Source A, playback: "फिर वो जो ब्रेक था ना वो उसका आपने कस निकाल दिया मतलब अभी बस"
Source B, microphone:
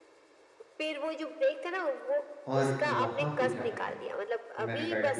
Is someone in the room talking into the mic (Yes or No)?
Yes